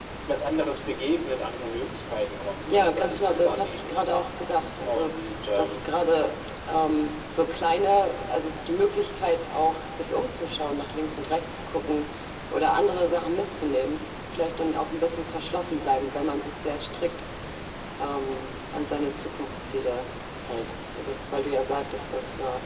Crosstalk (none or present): present